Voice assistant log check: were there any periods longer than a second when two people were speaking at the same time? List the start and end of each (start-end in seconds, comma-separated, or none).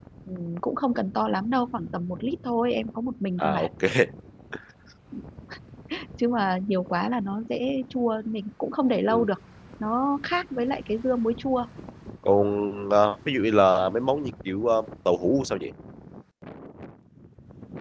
none